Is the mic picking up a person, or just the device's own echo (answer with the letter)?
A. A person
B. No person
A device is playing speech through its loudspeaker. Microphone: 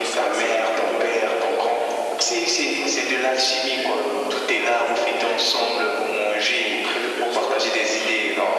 B